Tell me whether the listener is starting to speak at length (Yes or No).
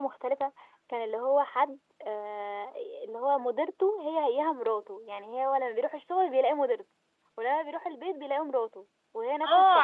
Yes